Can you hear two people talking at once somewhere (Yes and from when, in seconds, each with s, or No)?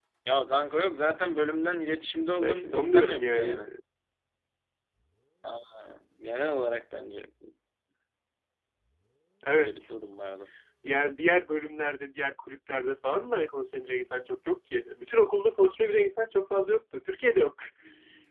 Yes, from 2.4 s